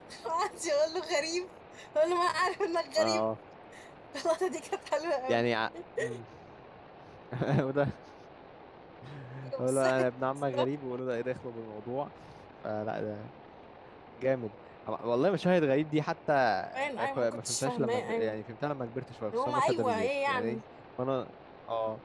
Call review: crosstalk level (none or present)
present